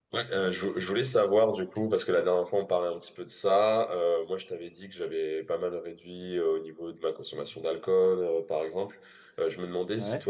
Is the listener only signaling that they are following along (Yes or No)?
Yes